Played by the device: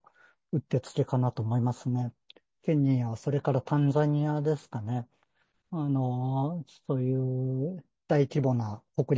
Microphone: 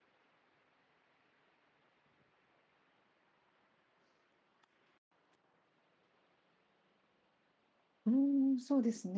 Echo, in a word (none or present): none